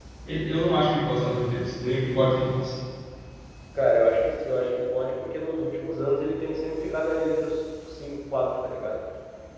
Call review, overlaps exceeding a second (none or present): none